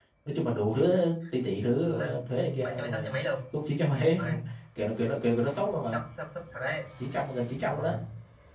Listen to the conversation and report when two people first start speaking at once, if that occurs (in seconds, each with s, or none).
1.9 s